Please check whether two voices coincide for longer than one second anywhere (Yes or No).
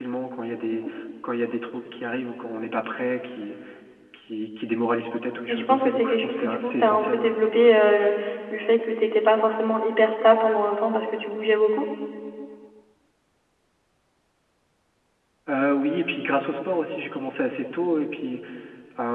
Yes